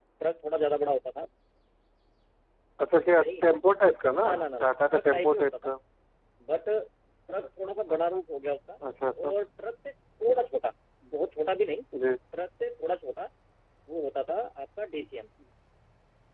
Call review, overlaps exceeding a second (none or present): present